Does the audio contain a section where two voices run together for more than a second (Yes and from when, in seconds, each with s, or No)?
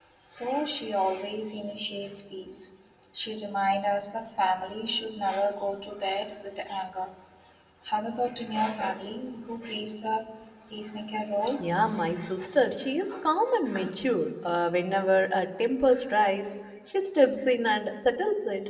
No